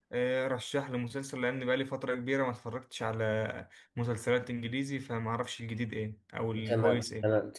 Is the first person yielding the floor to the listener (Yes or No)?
Yes